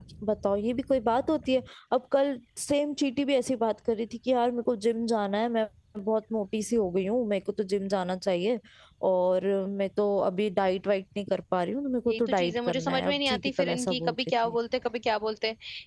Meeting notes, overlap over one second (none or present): present